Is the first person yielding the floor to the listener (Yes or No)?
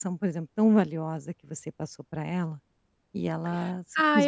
Yes